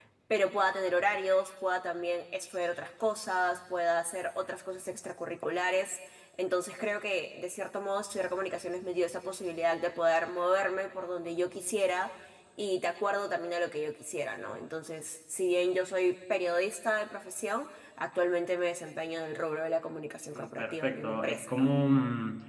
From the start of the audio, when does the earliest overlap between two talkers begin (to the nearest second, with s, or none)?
20 s